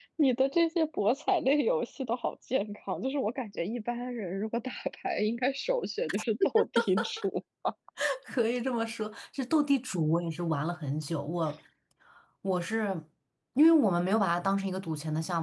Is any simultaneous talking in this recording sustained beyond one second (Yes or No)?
No